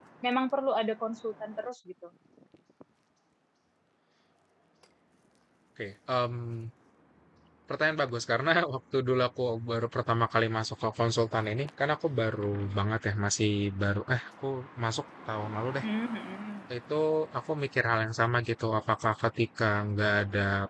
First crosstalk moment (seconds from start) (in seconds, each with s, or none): none